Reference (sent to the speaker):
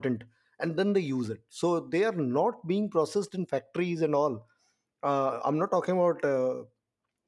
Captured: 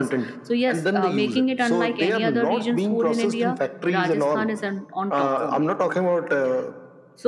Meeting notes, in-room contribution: present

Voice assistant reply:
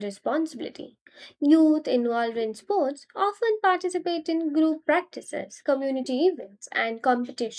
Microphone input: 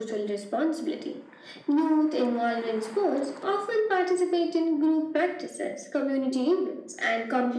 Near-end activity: none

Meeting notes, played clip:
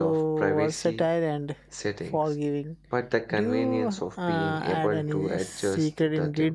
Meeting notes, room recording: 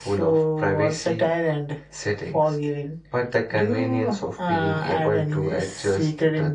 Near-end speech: none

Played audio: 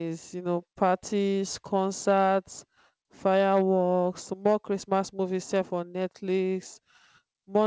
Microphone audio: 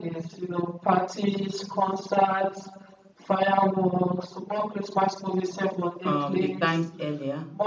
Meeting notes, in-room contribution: present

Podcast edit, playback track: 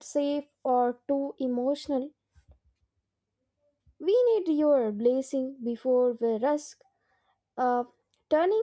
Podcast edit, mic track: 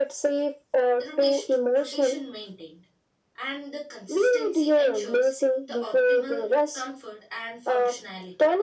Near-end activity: present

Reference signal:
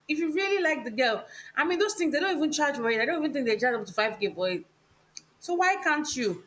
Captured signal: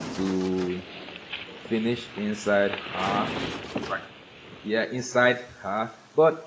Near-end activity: present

